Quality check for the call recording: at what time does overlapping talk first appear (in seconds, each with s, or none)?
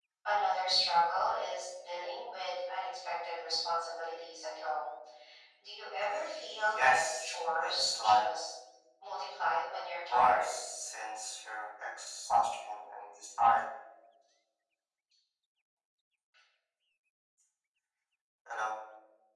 6.0 s